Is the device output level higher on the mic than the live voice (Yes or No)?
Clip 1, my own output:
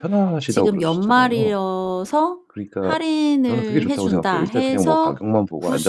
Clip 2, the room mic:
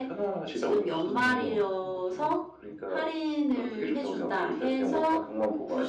Yes